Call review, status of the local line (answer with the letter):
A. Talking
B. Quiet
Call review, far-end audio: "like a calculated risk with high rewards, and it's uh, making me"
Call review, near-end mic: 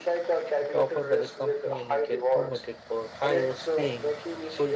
A